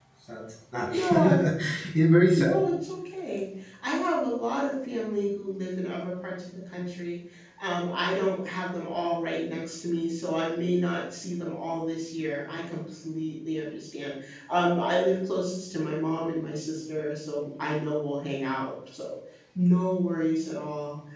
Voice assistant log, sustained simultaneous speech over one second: none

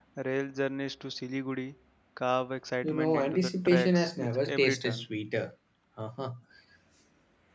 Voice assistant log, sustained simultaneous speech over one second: present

